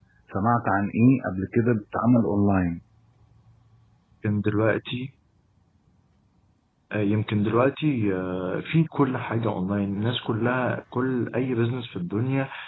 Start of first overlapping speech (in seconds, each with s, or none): none